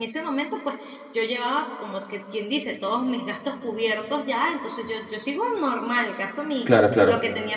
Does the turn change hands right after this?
No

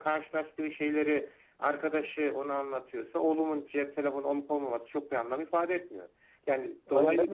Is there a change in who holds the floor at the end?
Yes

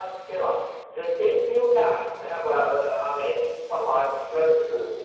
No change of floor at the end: Yes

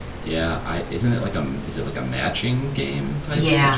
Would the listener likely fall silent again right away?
No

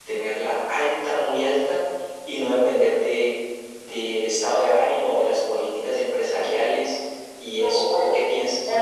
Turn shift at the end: Yes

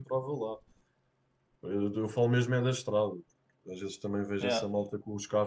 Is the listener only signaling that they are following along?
Yes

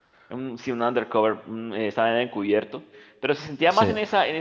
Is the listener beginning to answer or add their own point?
No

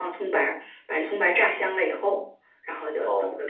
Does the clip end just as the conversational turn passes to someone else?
No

